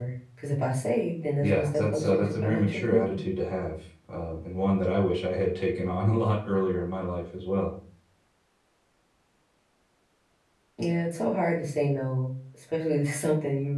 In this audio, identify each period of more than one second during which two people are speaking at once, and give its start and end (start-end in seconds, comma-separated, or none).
1.4-3.2